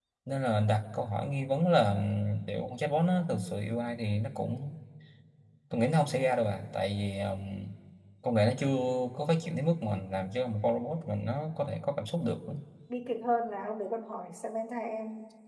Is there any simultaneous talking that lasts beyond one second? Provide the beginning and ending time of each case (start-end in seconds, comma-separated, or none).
none